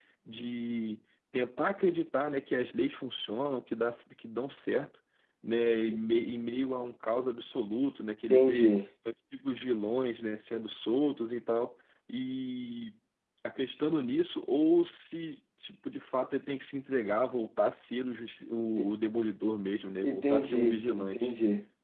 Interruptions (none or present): present